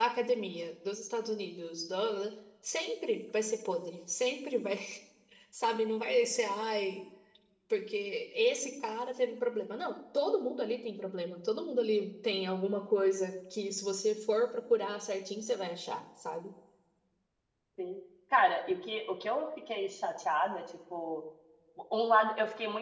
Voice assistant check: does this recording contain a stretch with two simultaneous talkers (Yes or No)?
No